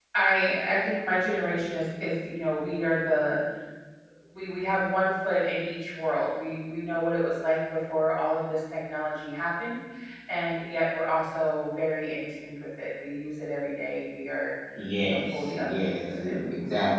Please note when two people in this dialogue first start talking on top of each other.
15.0 s

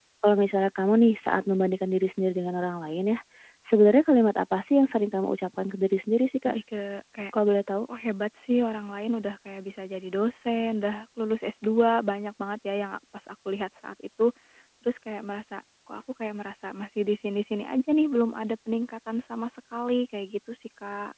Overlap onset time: none

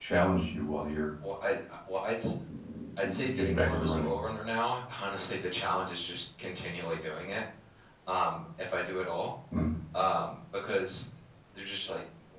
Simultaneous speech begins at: 3.0 s

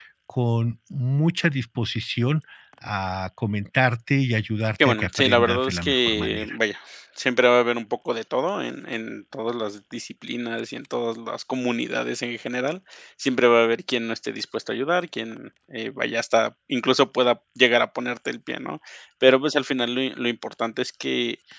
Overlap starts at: 4.8 s

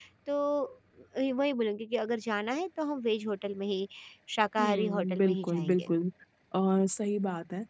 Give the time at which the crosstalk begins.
4.6 s

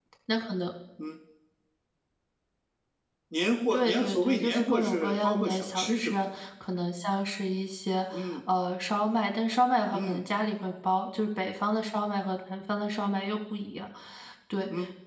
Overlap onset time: 3.7 s

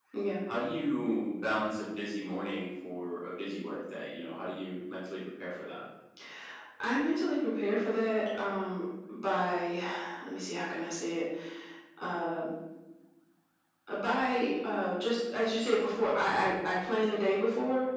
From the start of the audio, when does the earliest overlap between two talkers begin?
none

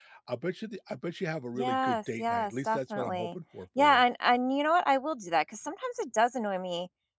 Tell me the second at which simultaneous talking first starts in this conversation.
1.6 s

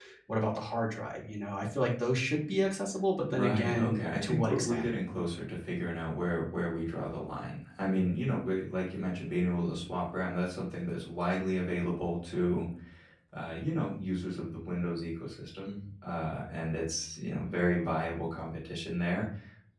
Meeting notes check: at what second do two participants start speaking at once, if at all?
3.2 s

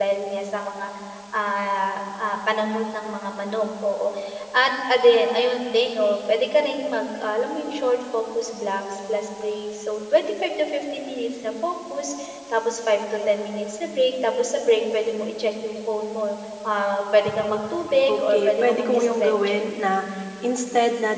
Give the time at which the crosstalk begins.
18.1 s

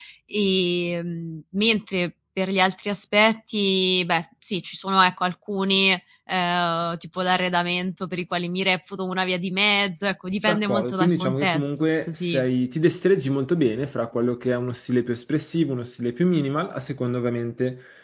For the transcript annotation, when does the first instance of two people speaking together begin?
10.5 s

